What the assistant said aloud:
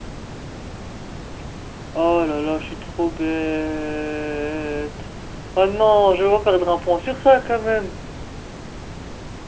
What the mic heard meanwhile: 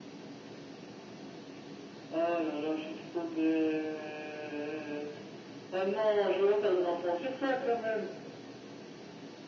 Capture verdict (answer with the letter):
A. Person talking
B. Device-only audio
B